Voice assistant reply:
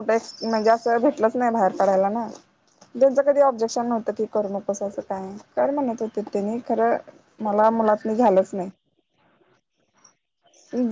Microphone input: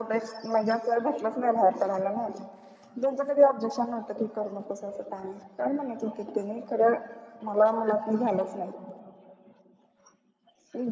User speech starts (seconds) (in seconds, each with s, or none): none